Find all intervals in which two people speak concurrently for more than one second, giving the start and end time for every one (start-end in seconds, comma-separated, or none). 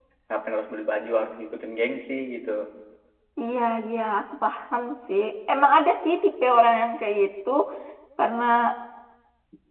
none